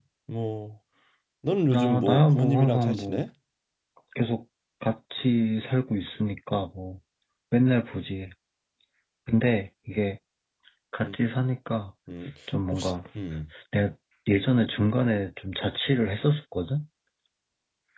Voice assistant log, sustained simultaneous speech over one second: present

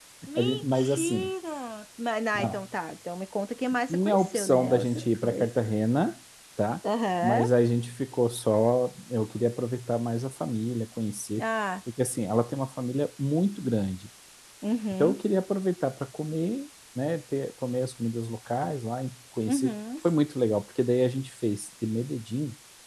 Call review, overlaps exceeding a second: present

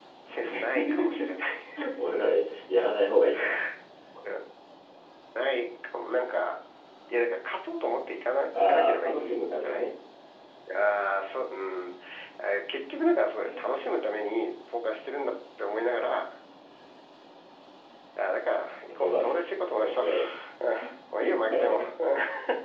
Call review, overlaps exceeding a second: present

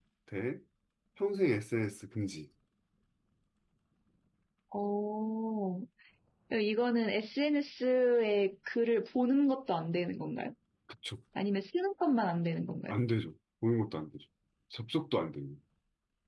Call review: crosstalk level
none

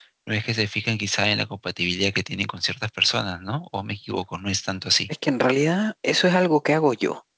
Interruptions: none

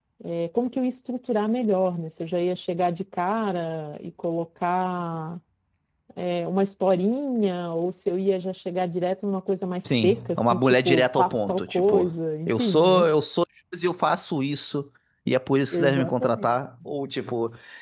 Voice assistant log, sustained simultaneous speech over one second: present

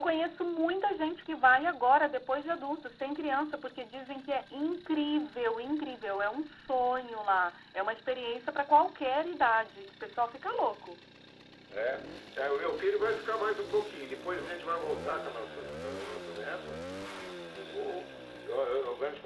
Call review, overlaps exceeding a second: none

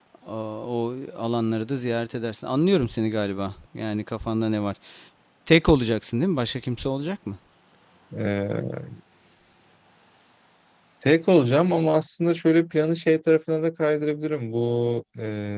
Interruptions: none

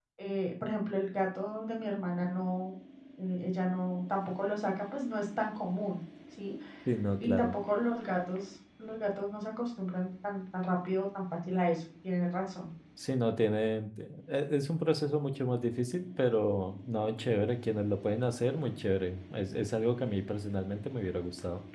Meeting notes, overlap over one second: none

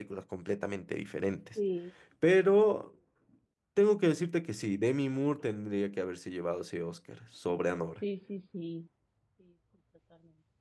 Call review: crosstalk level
none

